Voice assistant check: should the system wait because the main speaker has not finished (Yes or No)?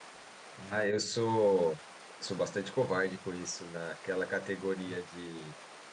Yes